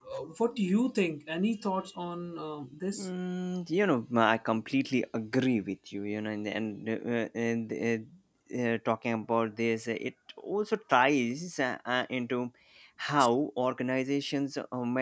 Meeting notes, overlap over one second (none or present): none